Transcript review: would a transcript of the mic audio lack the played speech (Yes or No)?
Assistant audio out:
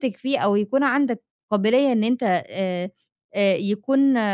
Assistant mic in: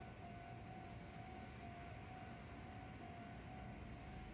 Yes